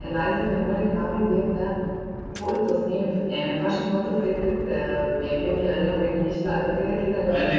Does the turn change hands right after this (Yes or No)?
Yes